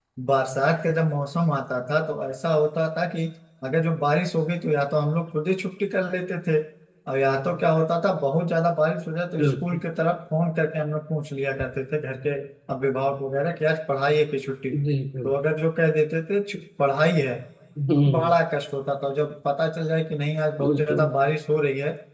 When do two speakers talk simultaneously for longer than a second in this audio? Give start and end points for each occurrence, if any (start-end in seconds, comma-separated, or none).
none